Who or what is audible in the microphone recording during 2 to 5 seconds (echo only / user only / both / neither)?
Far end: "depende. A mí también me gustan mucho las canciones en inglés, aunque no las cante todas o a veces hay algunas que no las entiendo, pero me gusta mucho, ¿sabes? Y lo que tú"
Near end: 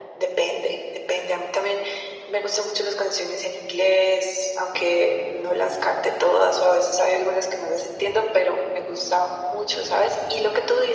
echo only